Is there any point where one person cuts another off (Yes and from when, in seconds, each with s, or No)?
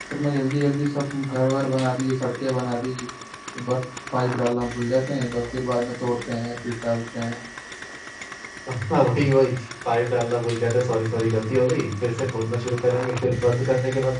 No